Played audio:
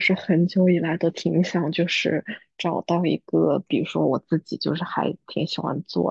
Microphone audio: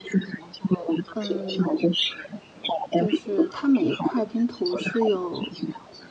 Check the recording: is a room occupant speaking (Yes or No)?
Yes